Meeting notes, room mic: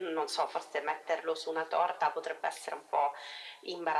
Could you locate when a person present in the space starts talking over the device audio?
none

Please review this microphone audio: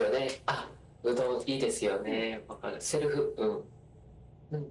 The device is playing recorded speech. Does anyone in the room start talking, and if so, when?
2.0 s

